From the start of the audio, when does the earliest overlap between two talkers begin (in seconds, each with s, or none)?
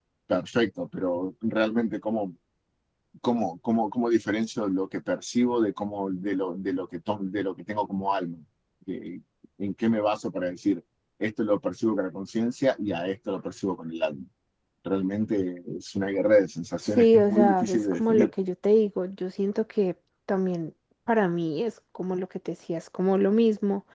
16.9 s